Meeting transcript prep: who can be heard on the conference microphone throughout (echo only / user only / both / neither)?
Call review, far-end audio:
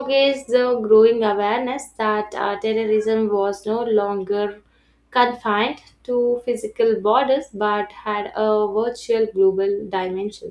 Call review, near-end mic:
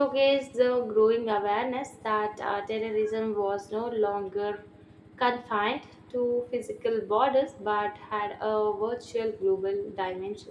echo only